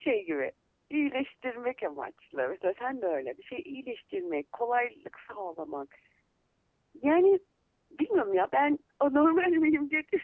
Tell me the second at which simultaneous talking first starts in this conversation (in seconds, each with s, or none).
none